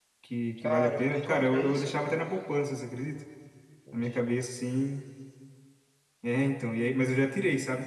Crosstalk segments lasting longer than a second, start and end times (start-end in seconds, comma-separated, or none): 0.6-2.2